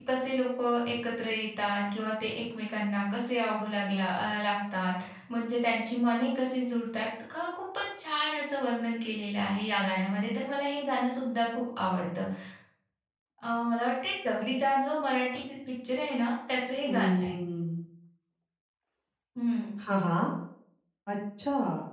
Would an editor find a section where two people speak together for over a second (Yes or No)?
No